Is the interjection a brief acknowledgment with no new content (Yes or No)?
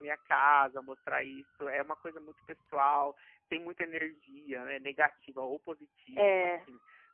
Yes